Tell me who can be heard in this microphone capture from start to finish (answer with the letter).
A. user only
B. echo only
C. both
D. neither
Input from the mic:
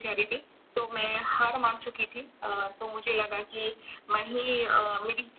B